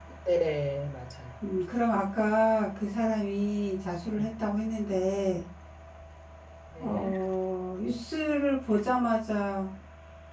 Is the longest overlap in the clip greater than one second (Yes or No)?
No